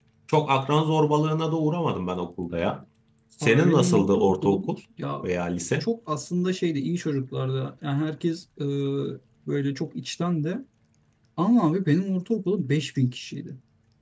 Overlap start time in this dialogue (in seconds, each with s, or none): 3.4 s